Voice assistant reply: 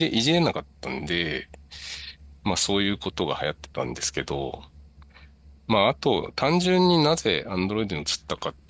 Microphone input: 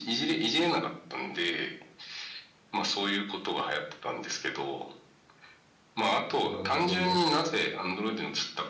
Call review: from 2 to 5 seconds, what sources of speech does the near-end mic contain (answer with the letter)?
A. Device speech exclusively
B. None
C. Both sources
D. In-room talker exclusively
A